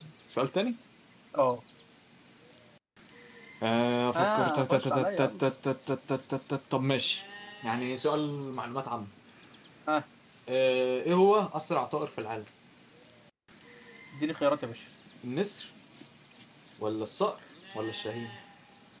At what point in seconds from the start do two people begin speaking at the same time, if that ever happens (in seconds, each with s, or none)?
4.1 s